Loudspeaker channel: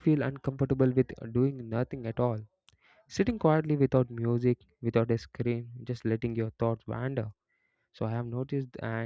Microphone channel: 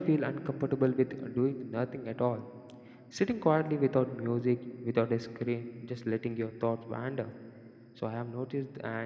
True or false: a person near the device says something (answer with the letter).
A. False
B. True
A